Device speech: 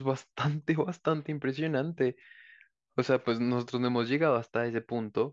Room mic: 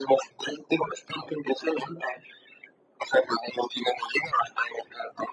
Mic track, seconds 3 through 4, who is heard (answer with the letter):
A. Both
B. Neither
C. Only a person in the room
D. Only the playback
D